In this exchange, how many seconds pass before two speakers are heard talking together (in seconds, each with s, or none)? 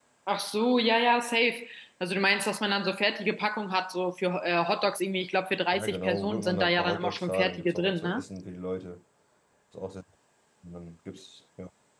5.7 s